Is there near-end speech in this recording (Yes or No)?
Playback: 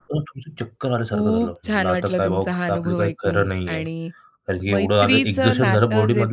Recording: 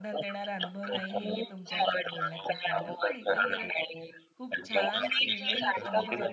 Yes